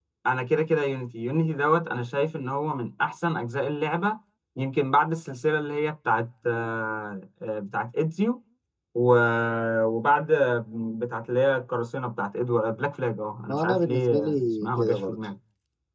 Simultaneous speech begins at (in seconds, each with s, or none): 13.5 s